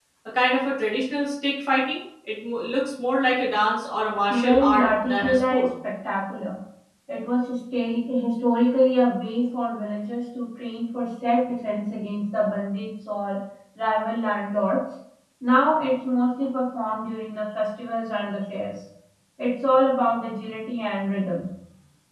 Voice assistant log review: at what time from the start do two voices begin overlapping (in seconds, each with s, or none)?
4.3 s